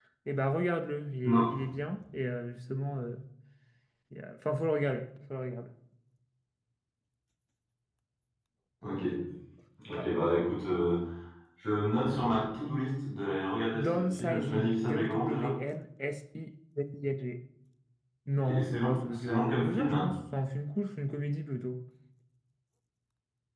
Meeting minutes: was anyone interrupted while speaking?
Yes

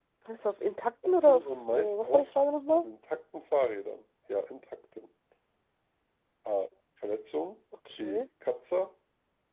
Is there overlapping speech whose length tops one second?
Yes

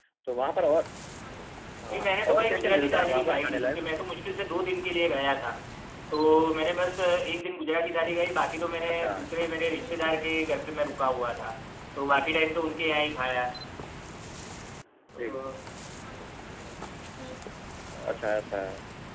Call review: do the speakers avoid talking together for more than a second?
No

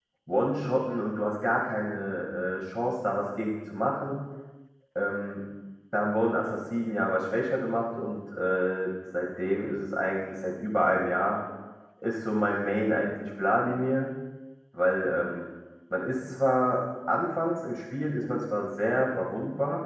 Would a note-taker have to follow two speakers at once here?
No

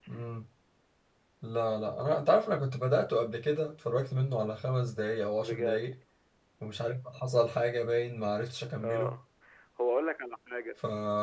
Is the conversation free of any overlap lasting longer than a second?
Yes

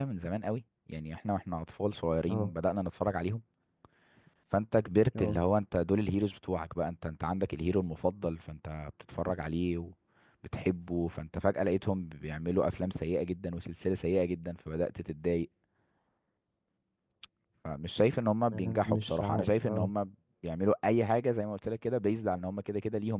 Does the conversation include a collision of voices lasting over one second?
Yes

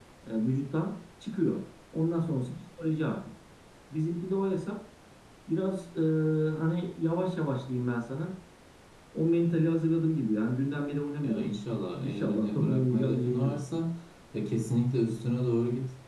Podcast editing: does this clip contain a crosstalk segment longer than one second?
Yes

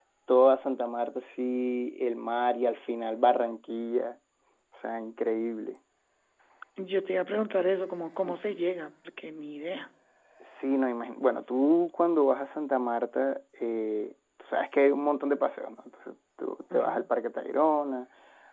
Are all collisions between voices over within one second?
Yes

